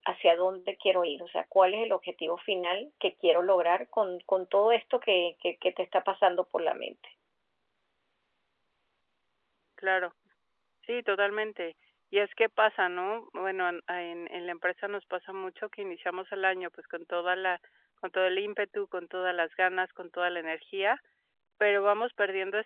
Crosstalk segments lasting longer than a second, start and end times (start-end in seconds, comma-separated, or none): none